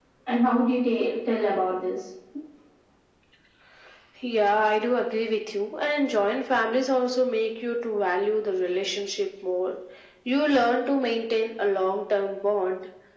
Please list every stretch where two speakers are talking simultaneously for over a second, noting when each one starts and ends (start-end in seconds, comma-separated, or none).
none